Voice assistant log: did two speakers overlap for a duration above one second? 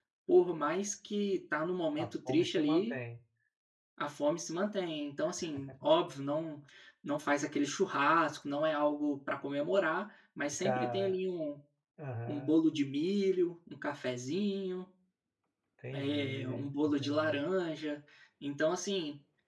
Yes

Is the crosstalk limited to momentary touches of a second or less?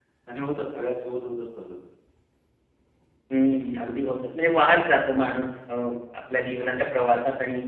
Yes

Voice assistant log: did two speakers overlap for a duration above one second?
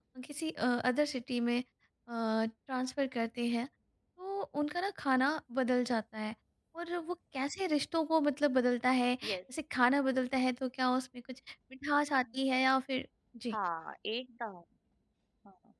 No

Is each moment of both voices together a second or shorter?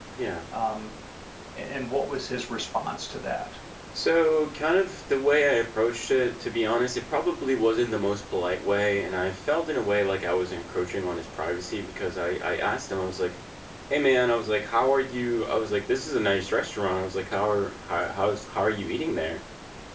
Yes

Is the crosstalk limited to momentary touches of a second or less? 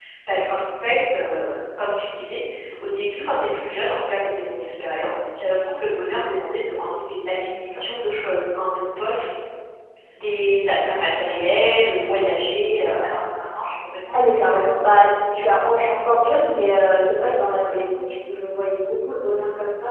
Yes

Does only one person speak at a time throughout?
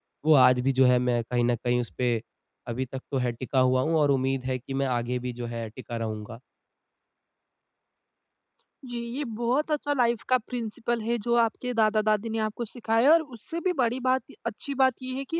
Yes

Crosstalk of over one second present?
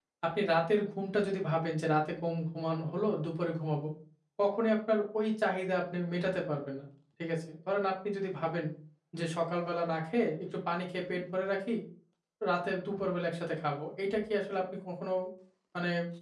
No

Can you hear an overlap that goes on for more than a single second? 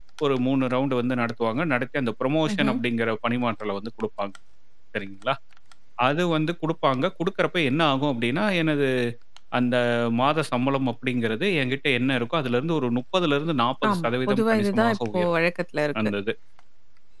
Yes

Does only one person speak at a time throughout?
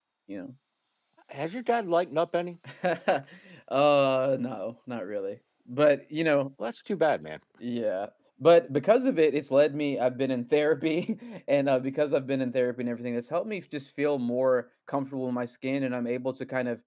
Yes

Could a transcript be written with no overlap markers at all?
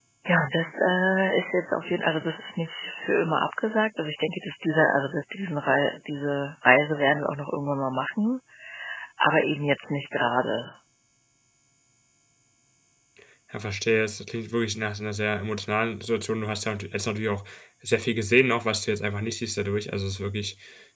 Yes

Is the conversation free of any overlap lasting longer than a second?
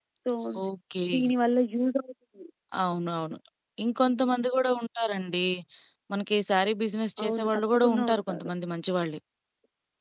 No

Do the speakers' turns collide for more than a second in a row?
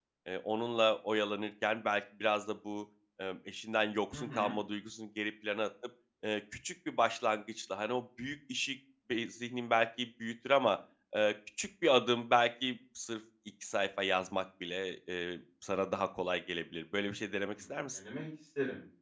No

